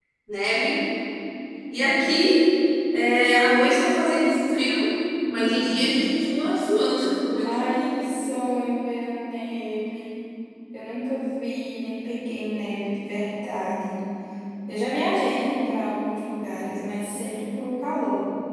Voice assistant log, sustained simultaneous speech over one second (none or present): none